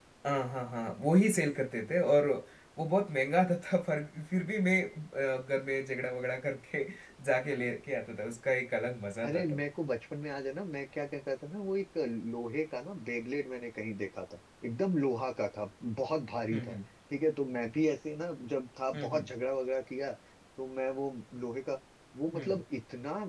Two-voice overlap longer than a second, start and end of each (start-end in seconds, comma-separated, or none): none